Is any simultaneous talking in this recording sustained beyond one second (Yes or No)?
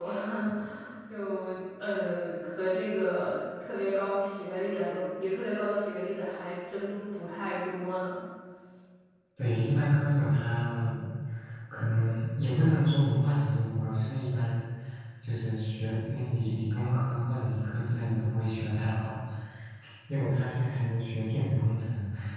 No